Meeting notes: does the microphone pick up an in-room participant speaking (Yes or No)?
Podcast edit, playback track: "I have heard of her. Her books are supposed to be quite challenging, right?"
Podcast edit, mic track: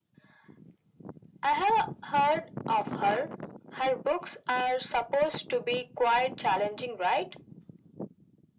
No